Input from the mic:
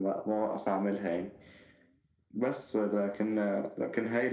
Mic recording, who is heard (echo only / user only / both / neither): echo only